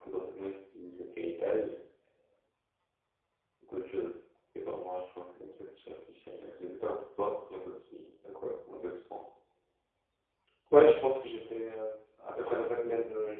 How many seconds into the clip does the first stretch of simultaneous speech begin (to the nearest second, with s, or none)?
none